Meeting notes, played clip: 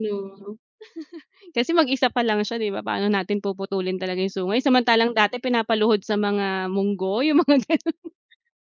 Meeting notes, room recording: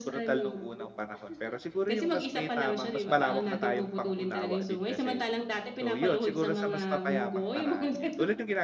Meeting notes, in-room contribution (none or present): present